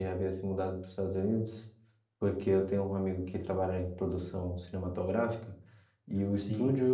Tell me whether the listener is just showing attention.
Yes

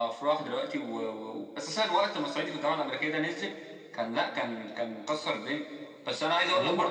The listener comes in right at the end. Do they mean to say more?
No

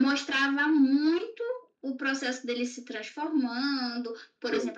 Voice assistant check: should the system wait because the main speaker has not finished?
Yes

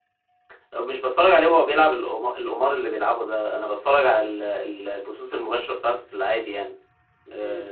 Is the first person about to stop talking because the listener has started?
Yes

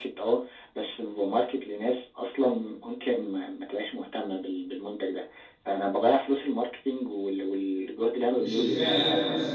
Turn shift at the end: Yes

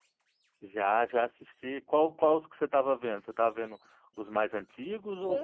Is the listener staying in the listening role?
No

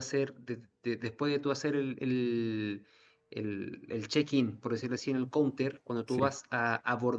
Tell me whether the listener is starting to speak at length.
No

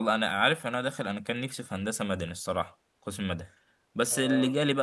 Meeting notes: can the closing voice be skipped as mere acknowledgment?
Yes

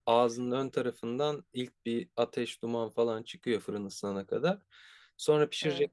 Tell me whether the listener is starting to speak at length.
No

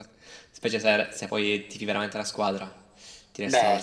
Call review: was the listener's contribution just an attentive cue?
No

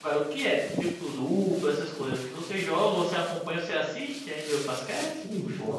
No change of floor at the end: No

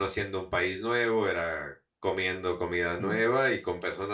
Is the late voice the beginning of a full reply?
No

